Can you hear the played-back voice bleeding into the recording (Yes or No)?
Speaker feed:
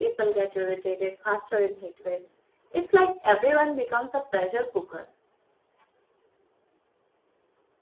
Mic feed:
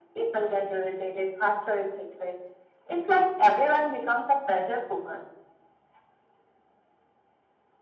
Yes